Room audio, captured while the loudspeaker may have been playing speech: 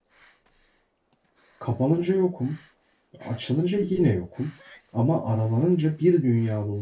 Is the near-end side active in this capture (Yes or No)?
Yes